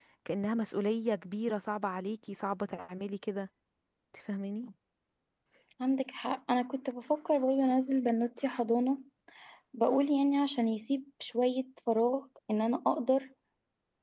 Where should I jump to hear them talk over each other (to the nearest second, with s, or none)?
none